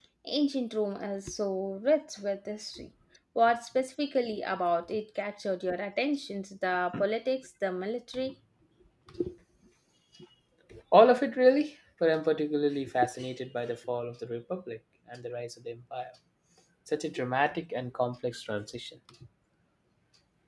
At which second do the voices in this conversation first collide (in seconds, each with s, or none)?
none